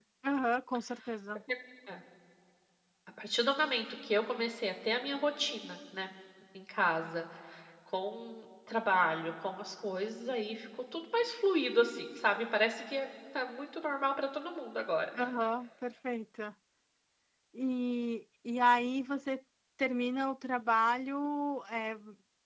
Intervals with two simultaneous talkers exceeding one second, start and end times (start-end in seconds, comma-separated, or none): none